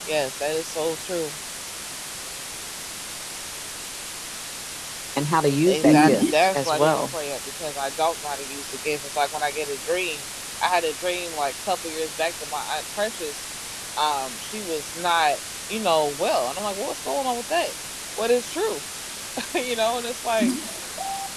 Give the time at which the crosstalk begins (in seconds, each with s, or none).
5.6 s